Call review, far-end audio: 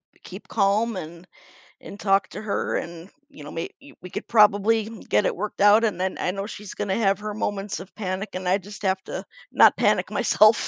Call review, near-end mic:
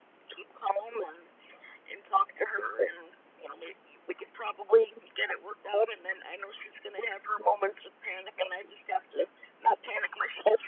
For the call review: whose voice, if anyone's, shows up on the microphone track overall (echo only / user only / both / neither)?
echo only